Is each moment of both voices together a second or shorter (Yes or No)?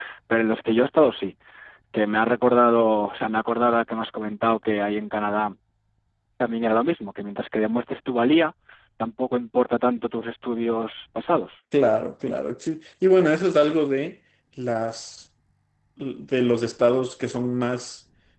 Yes